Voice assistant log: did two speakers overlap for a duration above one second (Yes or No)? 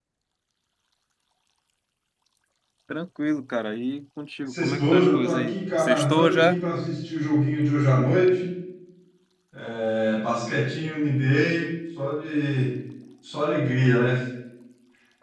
Yes